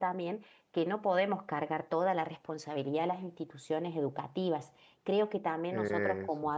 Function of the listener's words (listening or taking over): listening